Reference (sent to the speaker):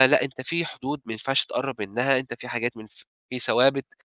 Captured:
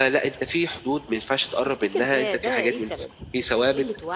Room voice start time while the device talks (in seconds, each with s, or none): 1.5 s